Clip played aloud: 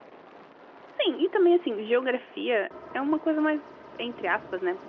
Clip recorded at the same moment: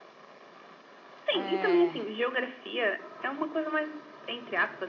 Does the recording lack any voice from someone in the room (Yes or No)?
No